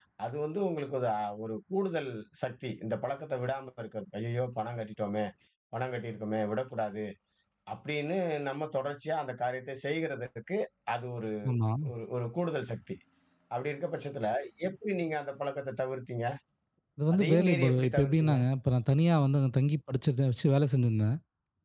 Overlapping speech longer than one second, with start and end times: 17.1-18.4

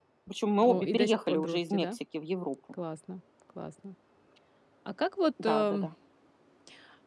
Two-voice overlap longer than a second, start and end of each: 0.6-2.0

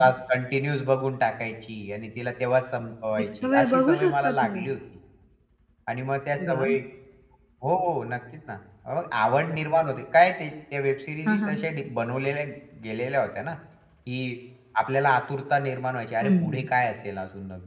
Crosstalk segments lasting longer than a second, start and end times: 3.4-4.6

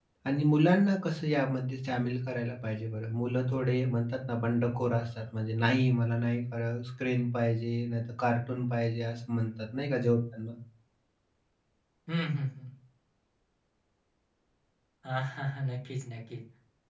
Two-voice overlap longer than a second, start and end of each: none

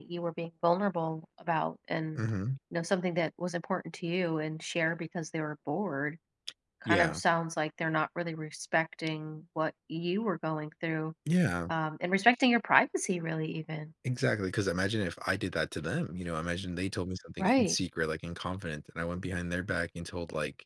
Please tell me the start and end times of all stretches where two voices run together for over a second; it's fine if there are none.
none

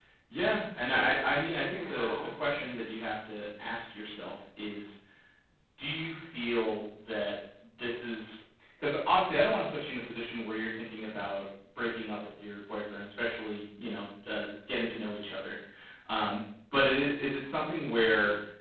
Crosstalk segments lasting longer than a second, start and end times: 0.9-2.1

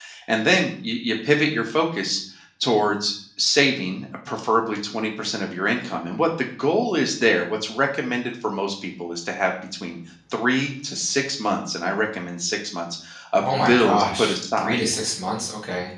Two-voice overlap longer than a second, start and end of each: 13.4-14.8

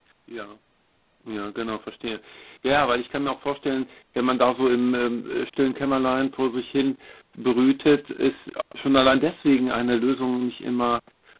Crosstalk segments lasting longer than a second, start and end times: none

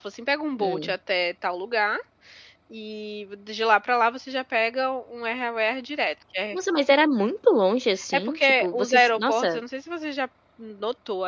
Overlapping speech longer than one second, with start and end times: 8.1-9.6

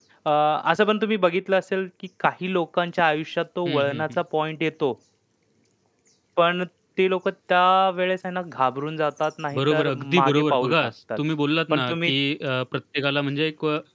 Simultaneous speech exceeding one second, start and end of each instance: 9.5-10.9

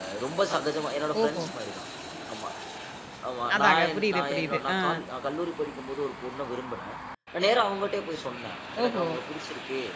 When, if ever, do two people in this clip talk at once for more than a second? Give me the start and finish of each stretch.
3.6-4.8

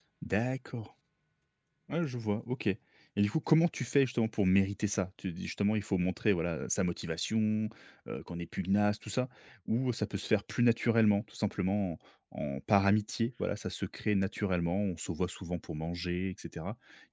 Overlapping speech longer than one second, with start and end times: none

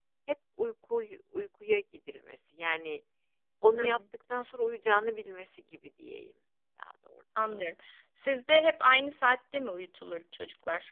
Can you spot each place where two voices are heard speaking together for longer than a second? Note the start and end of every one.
none

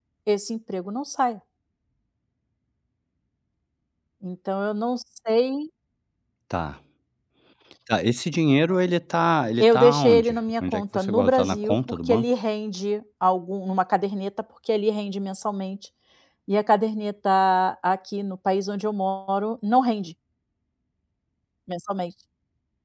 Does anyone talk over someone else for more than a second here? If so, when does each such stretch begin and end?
9.6-12.3

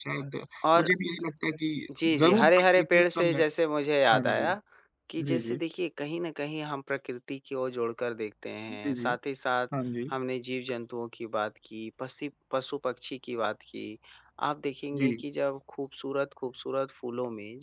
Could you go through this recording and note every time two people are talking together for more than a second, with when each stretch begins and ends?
2.2-3.4

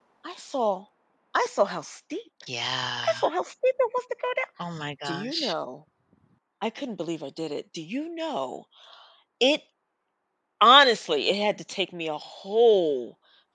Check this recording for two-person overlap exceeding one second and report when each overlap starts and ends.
none

